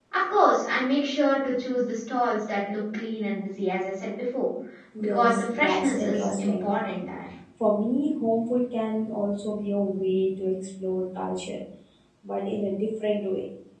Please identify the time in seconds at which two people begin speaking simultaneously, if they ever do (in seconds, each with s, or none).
5.0 s